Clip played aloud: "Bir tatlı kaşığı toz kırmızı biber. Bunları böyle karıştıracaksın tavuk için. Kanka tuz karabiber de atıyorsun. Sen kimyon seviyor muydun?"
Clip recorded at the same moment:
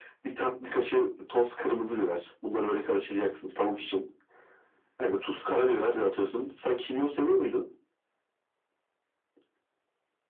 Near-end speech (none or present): none